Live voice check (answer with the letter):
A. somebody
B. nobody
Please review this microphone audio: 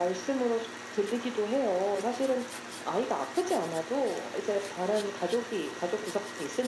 B